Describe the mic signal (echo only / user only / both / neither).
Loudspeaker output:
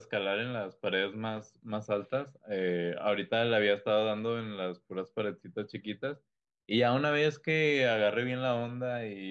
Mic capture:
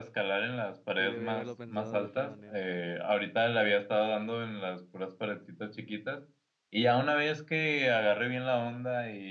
both